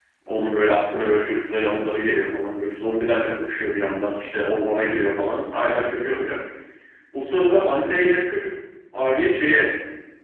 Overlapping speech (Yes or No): No